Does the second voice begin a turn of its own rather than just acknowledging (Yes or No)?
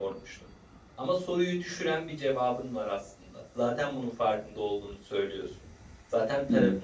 No